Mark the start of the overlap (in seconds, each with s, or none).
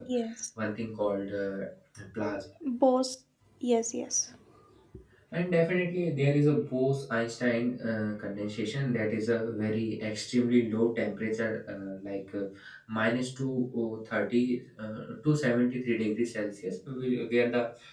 none